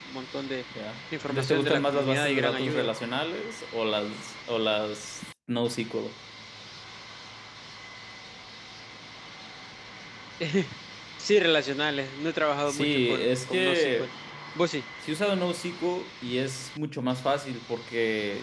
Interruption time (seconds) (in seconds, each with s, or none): 1.3 s